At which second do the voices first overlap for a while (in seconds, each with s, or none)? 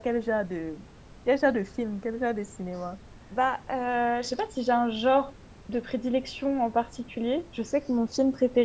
none